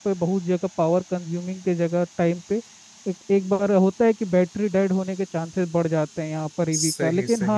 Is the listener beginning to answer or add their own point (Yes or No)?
No